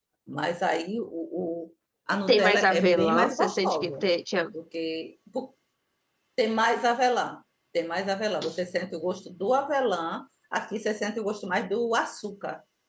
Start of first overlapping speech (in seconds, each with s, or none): 2.3 s